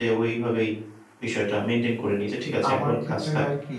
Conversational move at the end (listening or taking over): taking over